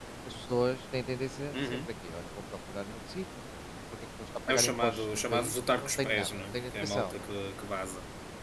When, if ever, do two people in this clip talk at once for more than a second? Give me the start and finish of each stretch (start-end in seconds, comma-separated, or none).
4.5-7.2